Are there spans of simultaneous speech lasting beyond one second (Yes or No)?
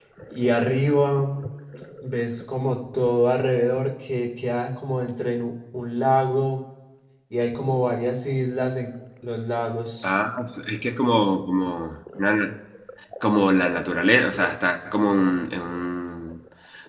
No